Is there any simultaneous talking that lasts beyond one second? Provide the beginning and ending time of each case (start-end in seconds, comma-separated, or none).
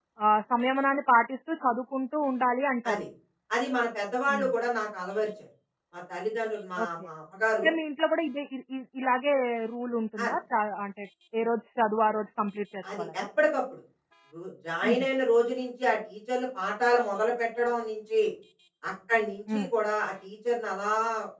none